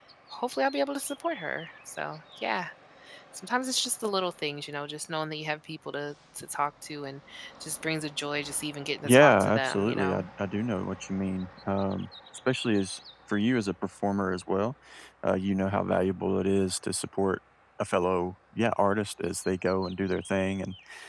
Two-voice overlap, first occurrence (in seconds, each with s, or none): 9.0 s